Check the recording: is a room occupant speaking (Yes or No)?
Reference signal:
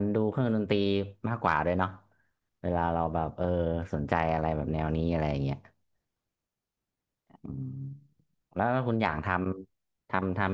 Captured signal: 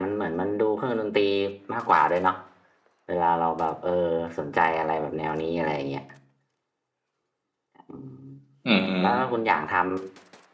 Yes